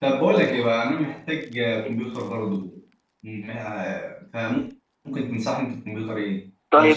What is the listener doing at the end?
taking over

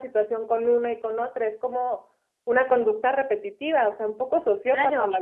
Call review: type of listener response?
taking over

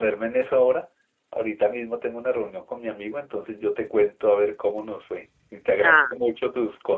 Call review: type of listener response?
listening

